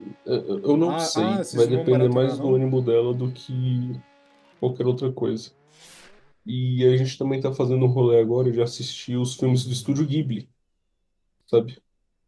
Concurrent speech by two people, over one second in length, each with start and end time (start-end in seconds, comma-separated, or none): 0.8-2.6